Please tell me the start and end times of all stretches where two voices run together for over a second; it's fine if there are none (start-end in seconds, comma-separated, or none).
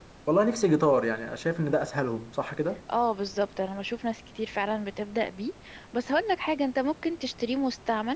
none